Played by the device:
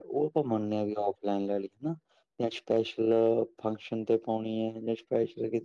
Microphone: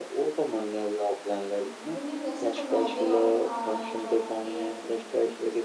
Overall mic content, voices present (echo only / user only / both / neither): both